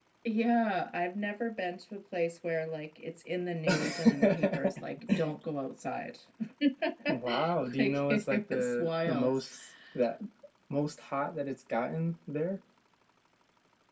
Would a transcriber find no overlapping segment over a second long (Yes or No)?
No